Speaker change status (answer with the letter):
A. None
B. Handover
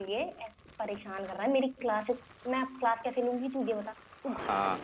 B